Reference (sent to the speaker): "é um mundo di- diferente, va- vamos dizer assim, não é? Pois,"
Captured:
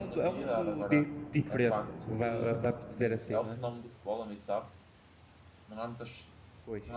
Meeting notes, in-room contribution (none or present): present